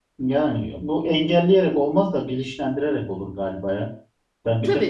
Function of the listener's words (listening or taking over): listening